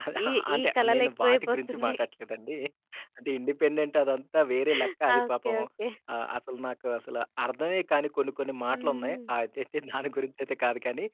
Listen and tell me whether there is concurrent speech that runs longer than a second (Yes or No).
Yes